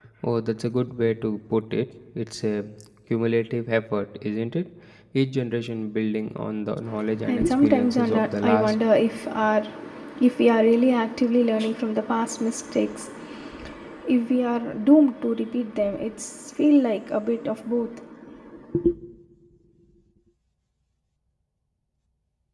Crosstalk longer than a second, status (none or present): present